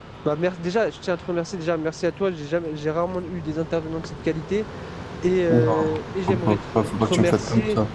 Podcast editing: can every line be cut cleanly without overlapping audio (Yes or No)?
No